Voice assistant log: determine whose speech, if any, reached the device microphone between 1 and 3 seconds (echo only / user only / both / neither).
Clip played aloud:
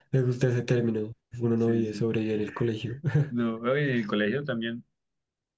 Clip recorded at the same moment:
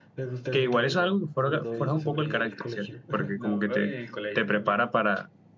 both